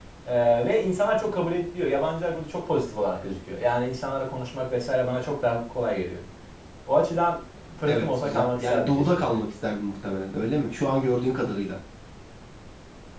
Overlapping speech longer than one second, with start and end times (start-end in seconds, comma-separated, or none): 7.9-9.4